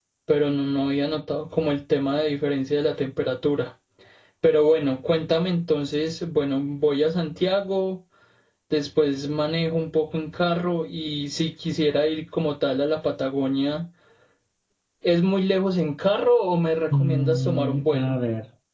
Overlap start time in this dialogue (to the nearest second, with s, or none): 17 s